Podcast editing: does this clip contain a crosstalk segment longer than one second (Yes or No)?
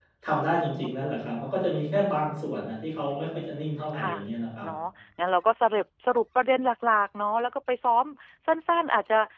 No